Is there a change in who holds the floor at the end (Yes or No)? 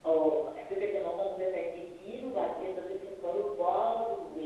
No